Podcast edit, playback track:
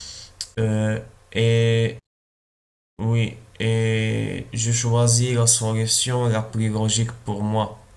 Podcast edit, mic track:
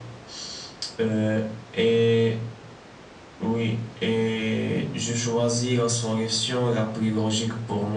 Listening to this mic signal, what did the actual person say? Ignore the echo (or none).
none